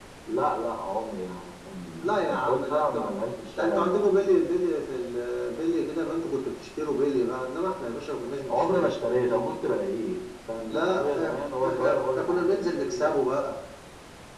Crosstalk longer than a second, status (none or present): present